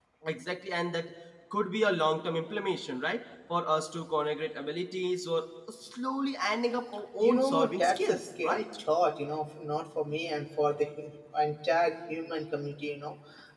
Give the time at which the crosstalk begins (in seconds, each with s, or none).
7.2 s